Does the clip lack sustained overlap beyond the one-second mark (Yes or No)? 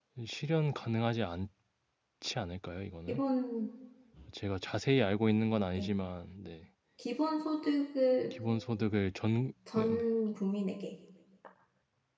Yes